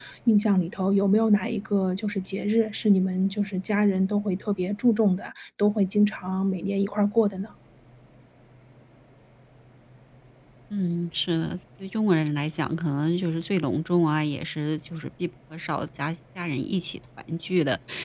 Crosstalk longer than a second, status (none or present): none